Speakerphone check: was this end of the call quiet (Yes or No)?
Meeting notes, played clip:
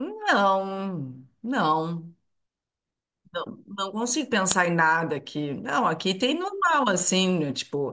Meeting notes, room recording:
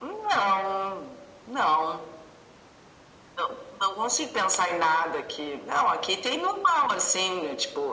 Yes